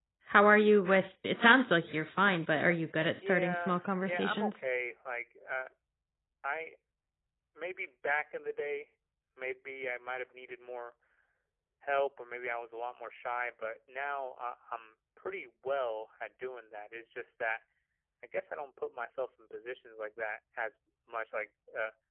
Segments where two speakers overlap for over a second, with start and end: 3.2-4.6

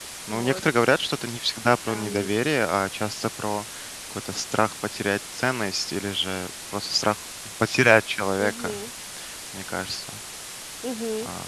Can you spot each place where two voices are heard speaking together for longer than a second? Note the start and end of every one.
none

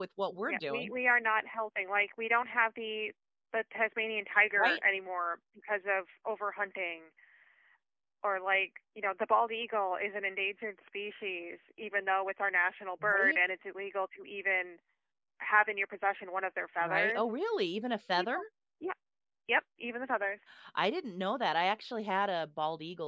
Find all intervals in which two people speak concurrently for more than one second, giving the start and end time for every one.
none

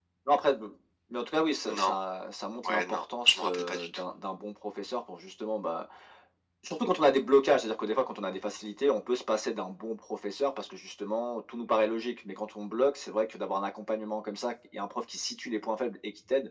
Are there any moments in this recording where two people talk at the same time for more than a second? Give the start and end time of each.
2.6-4.0

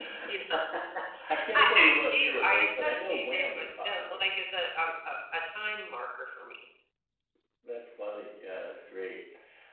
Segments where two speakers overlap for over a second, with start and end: 1.5-4.2

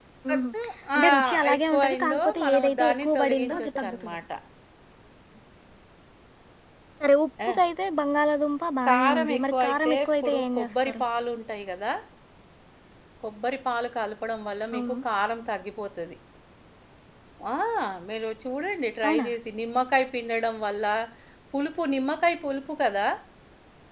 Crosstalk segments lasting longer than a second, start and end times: 1.0-4.2, 8.9-11.0

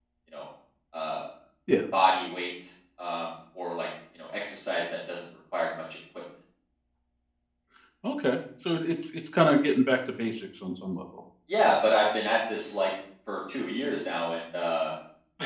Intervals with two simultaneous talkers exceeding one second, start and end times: none

